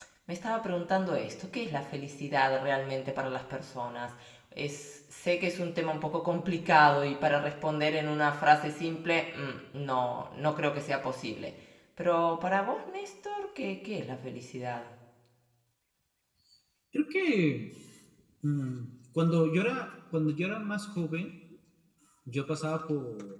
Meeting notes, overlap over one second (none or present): none